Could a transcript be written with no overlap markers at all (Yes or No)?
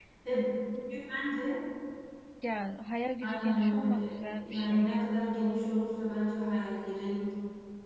No